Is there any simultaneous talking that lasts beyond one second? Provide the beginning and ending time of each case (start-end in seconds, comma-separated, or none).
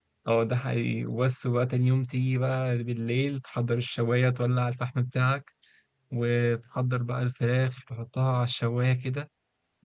none